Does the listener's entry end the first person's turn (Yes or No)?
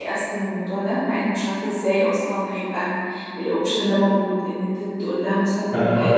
Yes